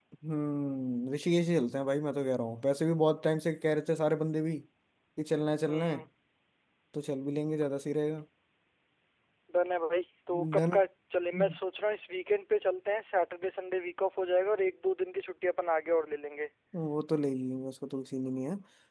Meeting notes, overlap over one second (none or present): none